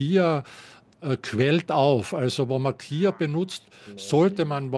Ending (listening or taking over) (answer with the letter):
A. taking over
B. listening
B